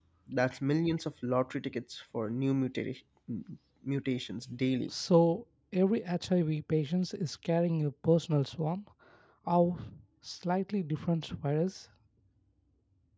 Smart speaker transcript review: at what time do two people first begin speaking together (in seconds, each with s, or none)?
none